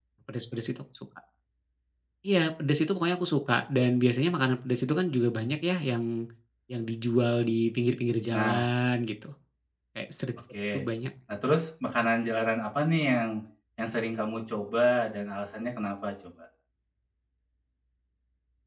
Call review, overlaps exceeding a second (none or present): none